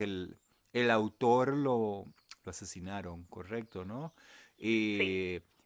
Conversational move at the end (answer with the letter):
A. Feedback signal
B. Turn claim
A